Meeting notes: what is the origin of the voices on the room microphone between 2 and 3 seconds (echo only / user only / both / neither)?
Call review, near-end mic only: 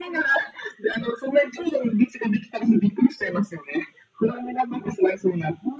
echo only